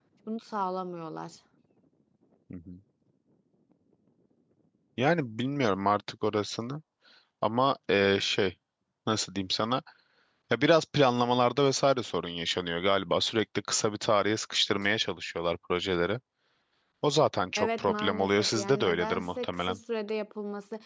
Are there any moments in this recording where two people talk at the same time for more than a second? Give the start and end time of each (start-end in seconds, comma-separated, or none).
17.6-19.8